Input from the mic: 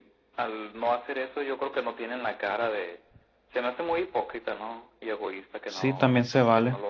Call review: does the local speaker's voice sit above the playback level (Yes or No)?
Yes